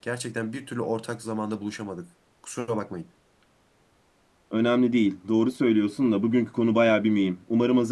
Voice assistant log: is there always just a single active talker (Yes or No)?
Yes